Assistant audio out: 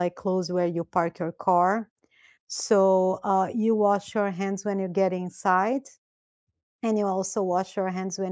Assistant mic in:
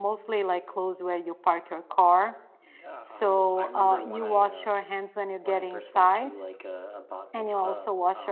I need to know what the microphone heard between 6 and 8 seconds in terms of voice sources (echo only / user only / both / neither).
both